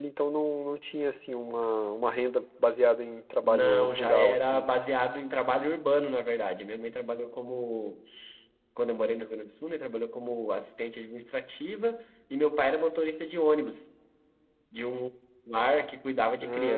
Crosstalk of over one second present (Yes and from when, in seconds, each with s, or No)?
Yes, from 3.4 s